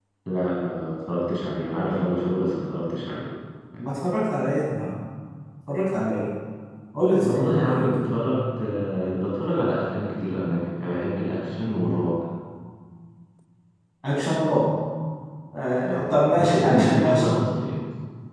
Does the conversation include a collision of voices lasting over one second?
Yes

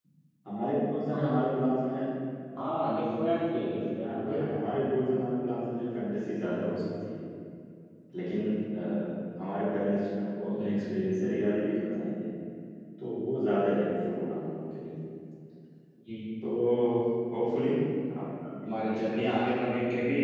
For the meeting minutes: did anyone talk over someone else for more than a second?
No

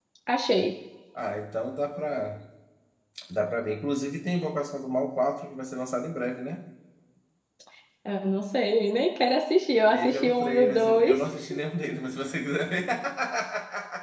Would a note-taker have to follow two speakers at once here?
Yes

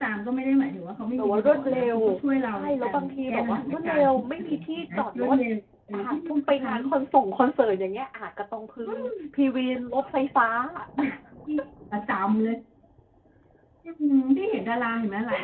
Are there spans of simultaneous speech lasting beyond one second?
Yes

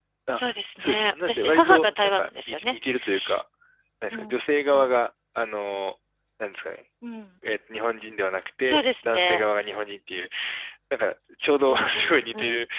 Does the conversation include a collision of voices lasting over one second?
Yes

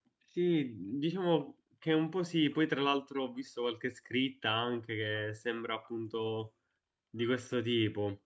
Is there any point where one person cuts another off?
No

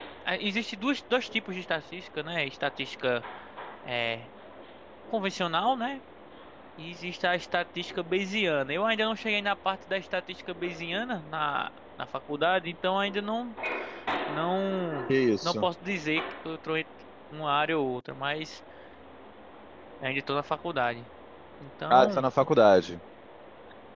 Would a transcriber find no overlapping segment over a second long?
Yes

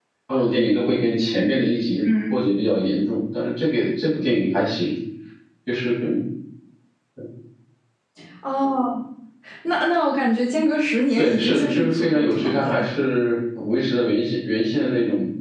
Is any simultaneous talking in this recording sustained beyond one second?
Yes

